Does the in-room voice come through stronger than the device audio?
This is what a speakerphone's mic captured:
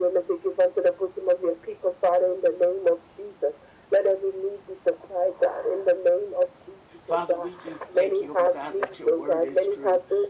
No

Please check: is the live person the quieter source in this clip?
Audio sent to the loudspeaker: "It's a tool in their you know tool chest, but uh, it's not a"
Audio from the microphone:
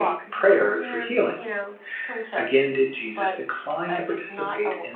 No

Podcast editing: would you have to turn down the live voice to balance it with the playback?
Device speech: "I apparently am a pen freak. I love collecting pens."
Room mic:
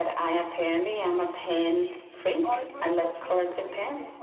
No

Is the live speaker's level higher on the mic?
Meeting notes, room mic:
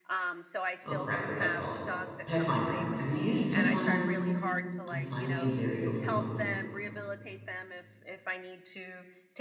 Yes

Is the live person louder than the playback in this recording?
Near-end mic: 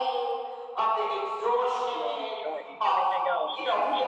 No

